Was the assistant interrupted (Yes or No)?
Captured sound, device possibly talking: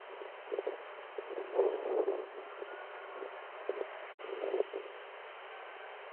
No